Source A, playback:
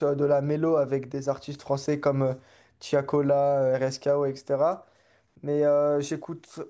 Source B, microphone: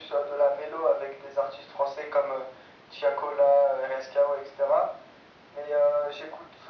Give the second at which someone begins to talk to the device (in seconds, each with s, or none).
none